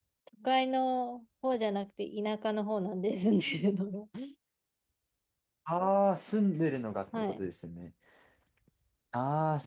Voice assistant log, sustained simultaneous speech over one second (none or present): none